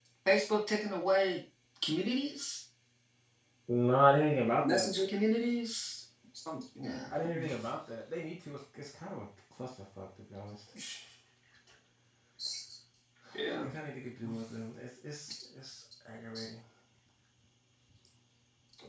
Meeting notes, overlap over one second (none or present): none